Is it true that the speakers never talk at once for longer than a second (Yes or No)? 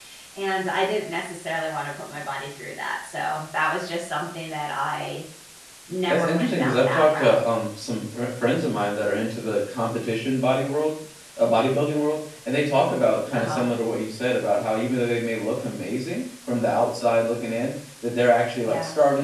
No